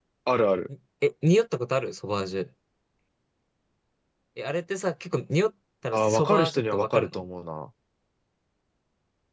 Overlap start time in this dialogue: 5.9 s

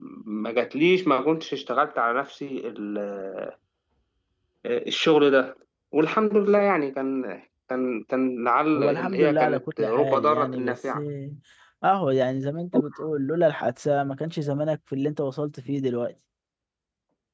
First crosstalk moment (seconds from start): 8.8 s

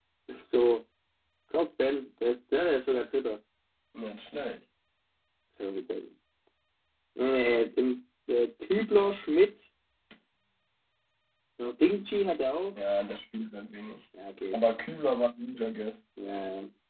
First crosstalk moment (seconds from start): none

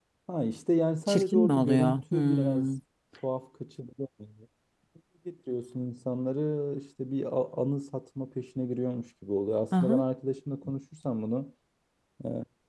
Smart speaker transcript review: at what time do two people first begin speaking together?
1.1 s

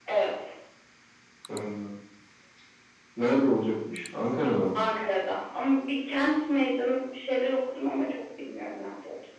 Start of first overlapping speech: none

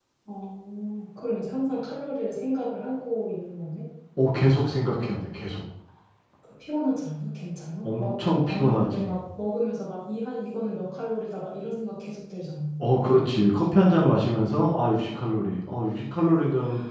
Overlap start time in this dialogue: 7.8 s

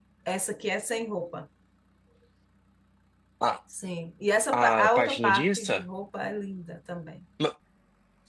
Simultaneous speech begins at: 4.5 s

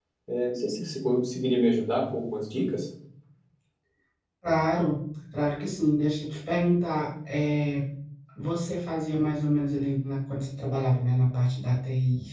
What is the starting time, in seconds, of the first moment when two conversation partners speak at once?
none

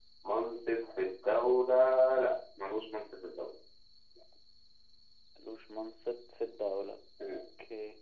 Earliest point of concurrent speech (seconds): none

